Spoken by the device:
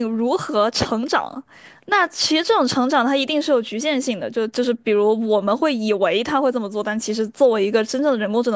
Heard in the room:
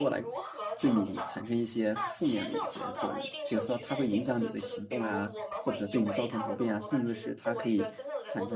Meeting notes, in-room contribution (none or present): present